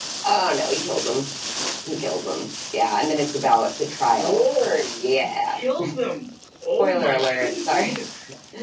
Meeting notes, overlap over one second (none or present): present